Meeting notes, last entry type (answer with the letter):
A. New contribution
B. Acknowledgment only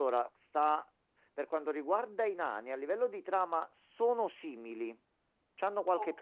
B